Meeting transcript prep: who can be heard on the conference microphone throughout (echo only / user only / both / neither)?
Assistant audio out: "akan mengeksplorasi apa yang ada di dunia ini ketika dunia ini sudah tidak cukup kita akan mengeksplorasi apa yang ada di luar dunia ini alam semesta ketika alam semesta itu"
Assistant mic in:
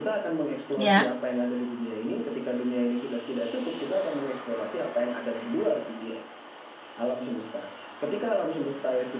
both